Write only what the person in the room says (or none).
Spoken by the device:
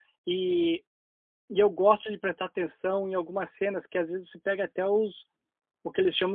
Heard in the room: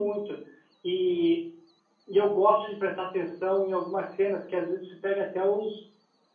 none